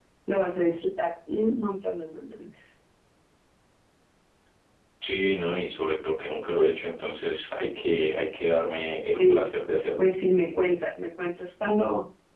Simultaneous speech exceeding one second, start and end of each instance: none

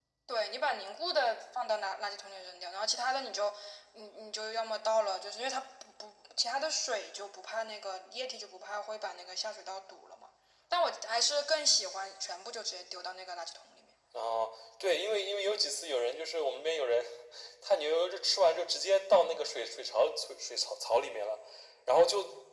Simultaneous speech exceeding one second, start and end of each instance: none

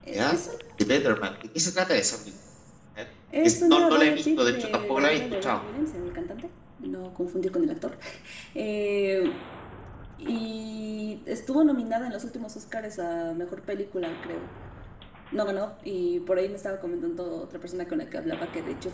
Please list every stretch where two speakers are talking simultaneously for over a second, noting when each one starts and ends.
3.4-5.6

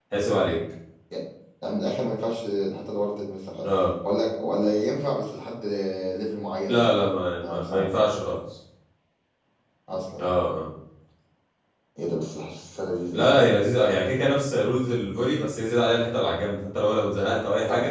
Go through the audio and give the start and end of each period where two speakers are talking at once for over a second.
none

